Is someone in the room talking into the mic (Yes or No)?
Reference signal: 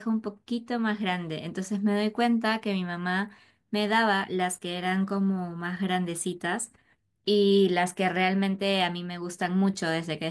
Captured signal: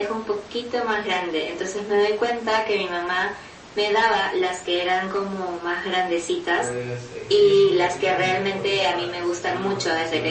Yes